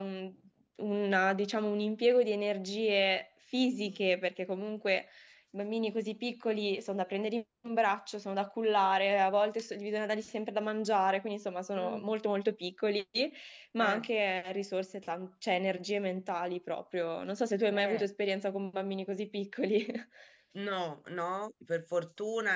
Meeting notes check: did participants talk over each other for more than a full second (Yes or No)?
No